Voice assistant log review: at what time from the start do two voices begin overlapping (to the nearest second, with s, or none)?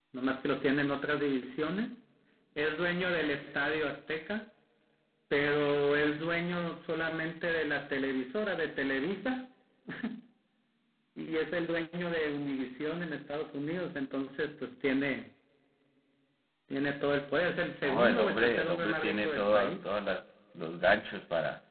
18 s